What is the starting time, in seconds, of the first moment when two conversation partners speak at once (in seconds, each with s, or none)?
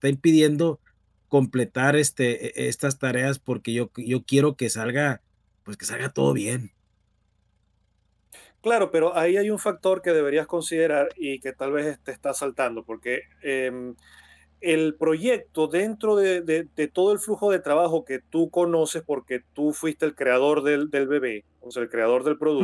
none